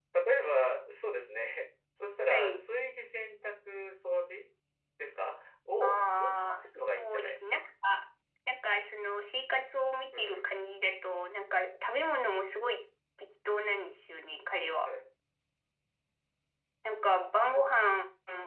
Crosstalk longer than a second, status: present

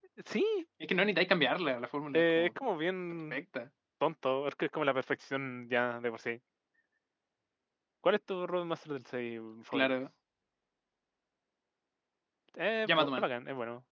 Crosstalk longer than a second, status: none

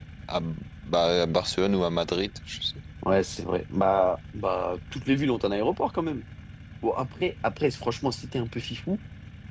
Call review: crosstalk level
none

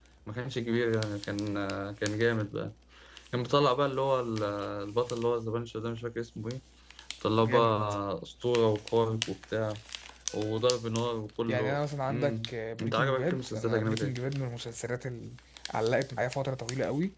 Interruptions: present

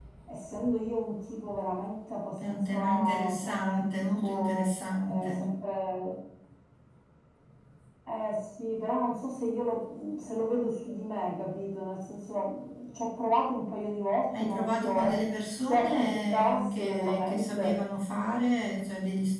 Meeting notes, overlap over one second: present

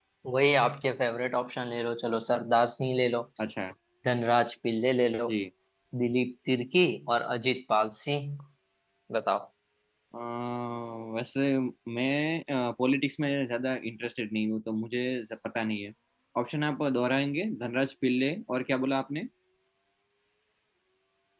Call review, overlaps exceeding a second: none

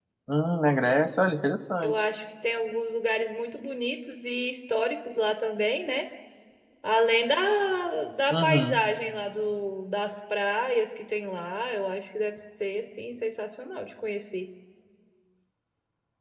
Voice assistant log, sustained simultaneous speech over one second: none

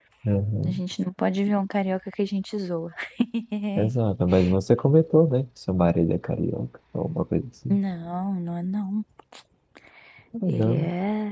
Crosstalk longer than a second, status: none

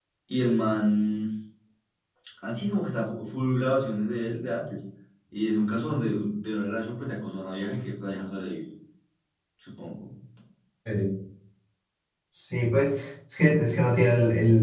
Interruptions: none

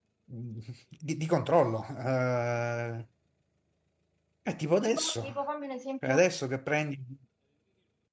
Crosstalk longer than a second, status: none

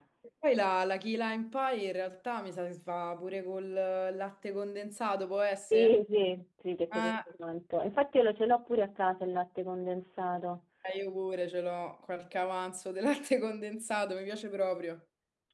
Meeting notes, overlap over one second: none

